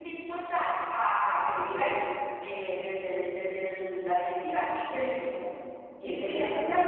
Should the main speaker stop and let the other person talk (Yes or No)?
Yes